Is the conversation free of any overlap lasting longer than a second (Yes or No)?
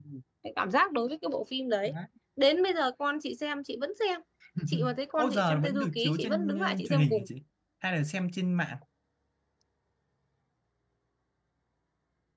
No